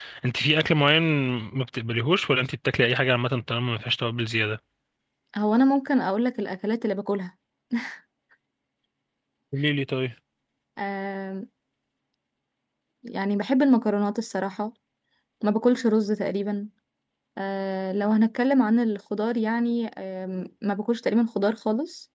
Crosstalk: none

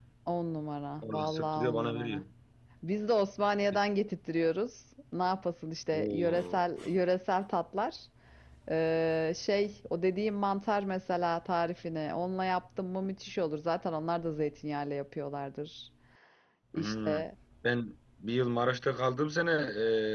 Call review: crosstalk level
present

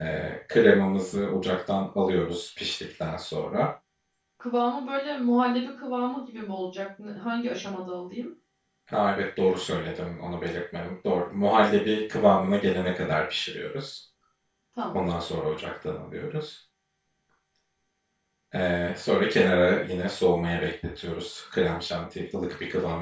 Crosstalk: none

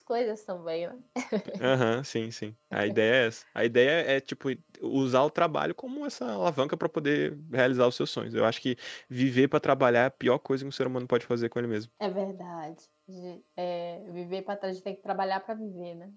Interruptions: none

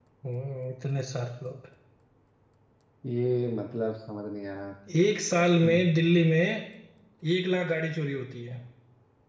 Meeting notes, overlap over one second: none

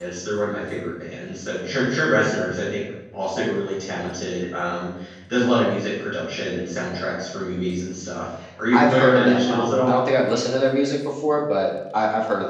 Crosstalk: present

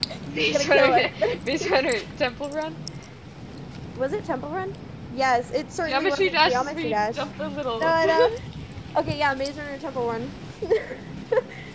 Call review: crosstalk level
present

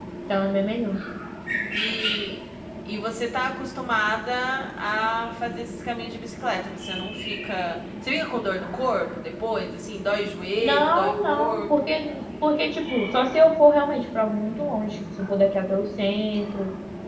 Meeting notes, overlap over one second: present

